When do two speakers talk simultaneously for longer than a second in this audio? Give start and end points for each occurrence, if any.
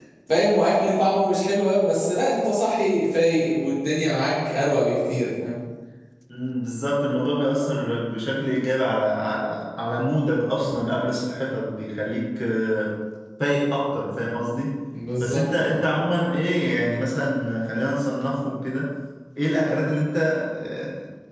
none

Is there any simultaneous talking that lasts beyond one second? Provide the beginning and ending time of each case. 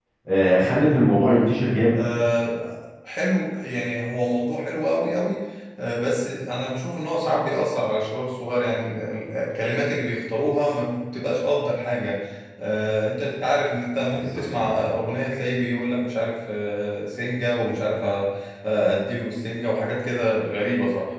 none

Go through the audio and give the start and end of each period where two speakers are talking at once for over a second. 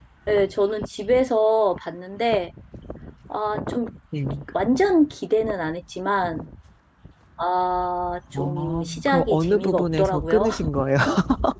8.3-10.5

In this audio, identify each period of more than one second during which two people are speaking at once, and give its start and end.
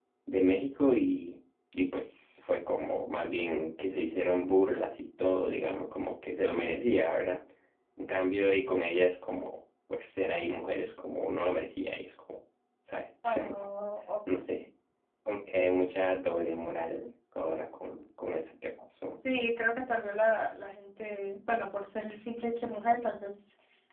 none

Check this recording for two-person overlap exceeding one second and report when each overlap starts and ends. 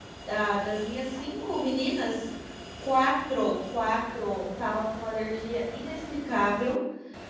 none

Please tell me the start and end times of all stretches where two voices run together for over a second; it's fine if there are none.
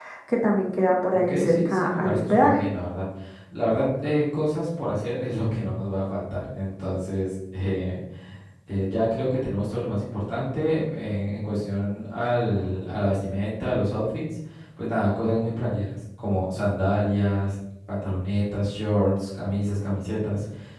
1.1-2.6

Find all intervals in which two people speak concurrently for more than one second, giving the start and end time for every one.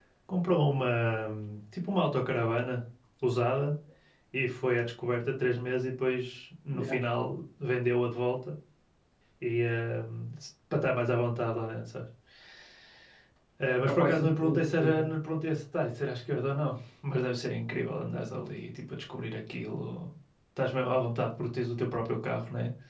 13.8-15.1

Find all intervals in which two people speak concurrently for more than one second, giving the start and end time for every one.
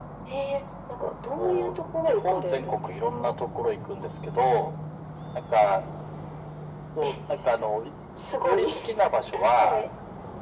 1.4-3.3

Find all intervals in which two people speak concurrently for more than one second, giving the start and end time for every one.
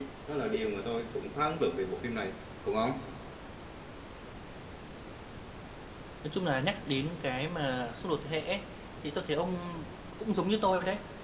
none

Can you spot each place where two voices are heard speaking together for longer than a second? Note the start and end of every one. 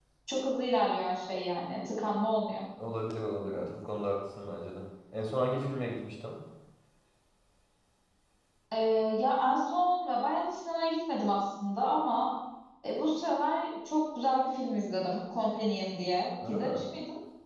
none

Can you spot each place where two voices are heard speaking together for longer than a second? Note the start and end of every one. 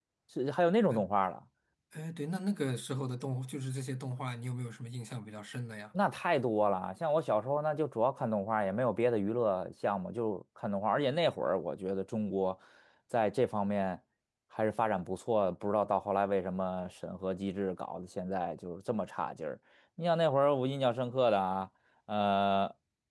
none

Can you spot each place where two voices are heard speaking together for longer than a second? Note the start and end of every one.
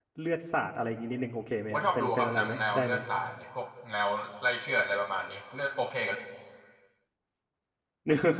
1.7-3.0

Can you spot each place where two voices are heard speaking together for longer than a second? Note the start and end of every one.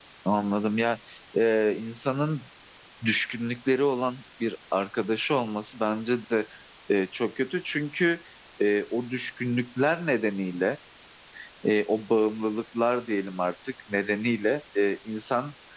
none

